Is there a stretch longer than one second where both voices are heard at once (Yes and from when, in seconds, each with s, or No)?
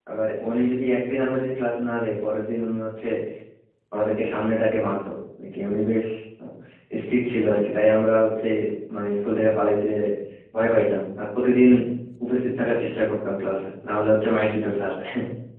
No